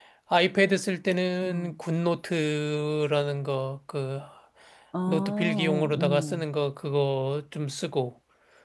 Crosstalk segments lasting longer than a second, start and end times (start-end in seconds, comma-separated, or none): 5.1-6.5